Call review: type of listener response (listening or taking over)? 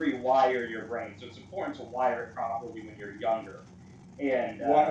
taking over